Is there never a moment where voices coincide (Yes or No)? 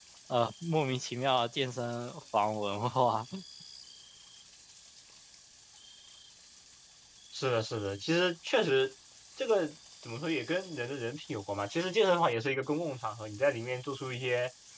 Yes